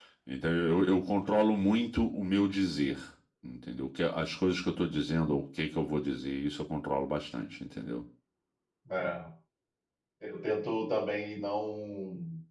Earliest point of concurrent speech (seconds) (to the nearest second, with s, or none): none